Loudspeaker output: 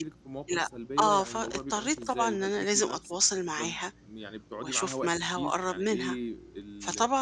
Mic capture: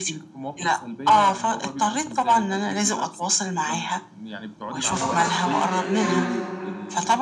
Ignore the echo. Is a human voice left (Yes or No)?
Yes